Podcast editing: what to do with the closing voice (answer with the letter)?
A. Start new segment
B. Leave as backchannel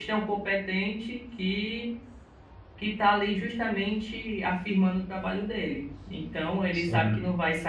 B